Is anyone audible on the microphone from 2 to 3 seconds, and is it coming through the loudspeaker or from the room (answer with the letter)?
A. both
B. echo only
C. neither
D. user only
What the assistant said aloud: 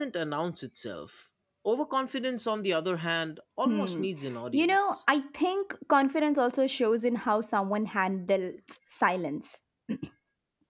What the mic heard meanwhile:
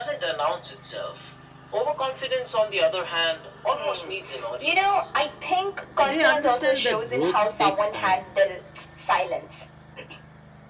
B